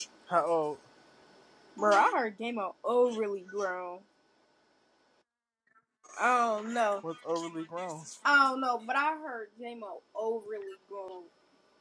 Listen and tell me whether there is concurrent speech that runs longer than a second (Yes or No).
No